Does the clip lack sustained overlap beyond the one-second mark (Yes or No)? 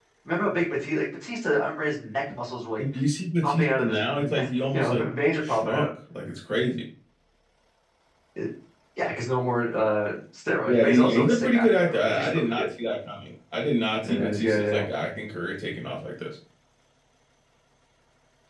No